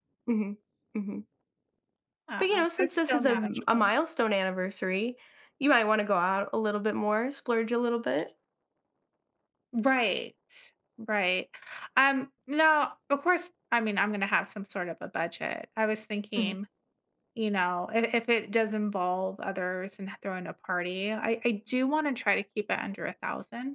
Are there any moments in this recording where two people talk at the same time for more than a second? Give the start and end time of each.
2.4-3.9

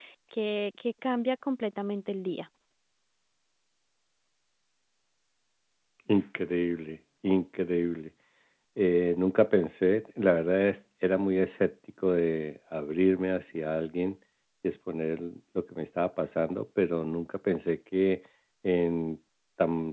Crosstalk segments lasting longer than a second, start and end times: none

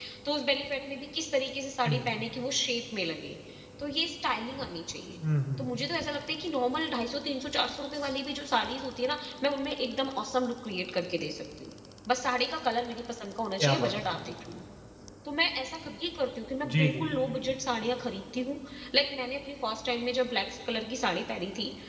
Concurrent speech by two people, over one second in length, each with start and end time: none

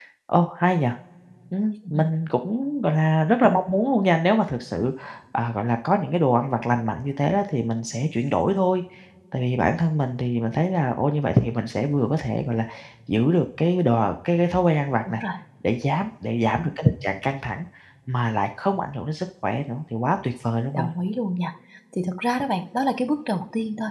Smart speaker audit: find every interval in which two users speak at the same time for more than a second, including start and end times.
none

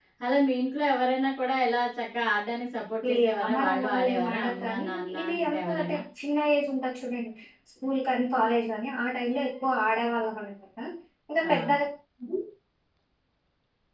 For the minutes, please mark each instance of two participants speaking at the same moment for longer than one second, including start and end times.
3.1-6.0

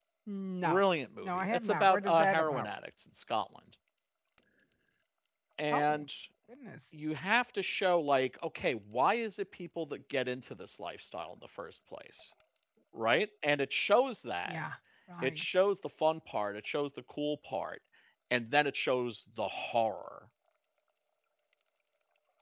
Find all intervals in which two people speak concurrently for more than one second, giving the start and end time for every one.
1.2-2.7

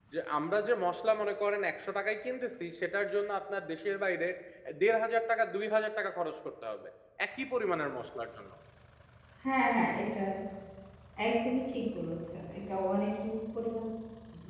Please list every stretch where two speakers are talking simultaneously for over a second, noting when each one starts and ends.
none

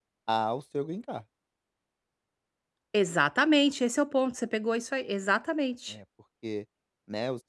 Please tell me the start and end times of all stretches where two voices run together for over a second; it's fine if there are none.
none

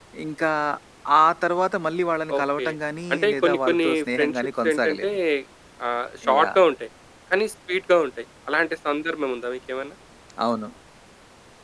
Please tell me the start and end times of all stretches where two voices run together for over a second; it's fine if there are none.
3.1-5.1

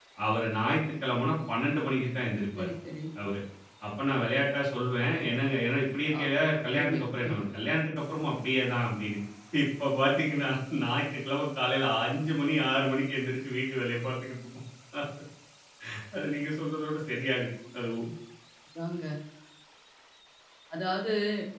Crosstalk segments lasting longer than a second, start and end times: none

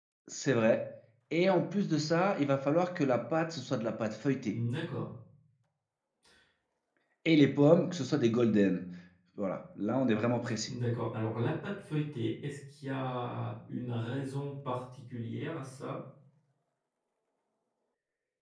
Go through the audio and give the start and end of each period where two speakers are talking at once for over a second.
none

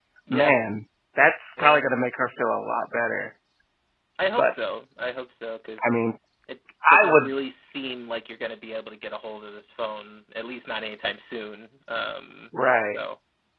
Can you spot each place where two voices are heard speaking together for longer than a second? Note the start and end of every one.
none

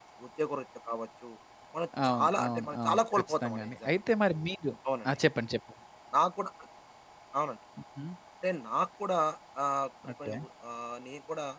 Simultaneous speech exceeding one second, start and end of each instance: 2.1-3.9

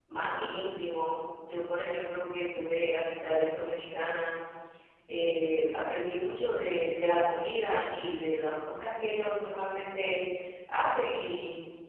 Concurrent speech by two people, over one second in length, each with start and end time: none

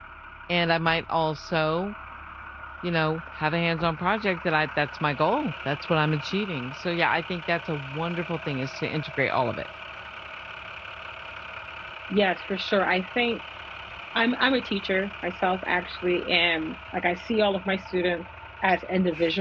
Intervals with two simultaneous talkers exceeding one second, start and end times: none

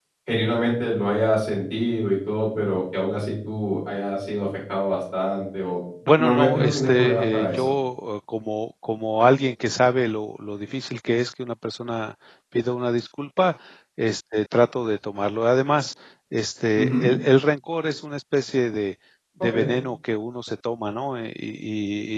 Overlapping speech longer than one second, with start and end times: 6.2-7.7

